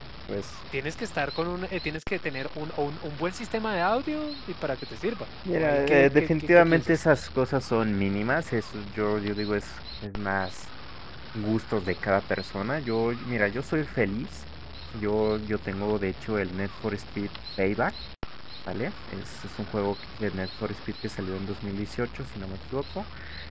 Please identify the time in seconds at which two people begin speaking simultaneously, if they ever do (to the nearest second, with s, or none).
5 s